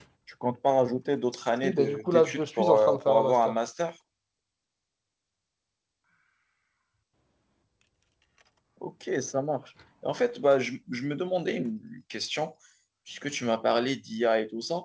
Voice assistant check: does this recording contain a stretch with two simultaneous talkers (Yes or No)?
Yes